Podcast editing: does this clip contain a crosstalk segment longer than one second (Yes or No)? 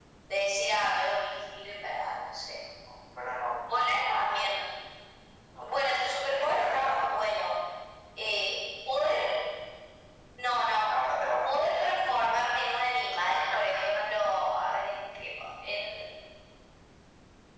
Yes